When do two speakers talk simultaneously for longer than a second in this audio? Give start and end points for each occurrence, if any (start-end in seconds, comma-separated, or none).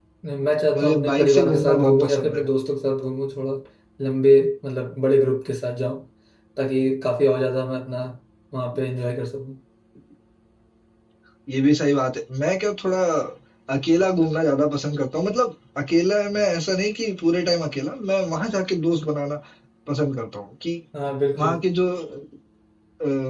0.8-2.5